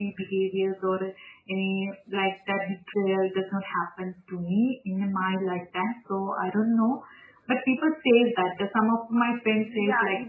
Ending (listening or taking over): taking over